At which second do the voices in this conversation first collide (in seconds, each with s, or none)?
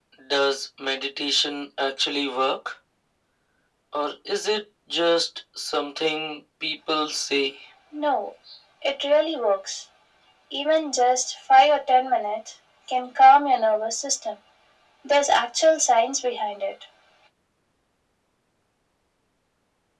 none